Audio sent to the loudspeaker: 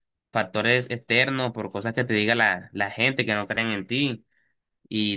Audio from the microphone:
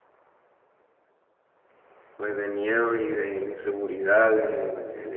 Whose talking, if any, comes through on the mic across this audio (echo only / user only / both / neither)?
user only